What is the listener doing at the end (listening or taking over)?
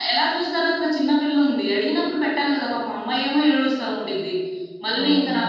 listening